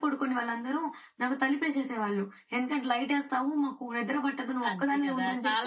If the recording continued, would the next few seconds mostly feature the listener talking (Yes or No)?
Yes